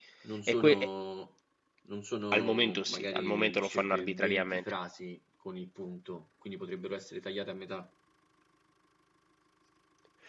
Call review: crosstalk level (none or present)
present